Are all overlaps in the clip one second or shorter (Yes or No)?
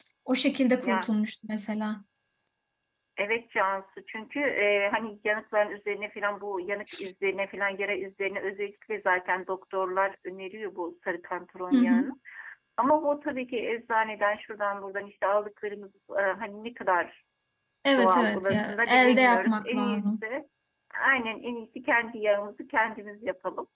No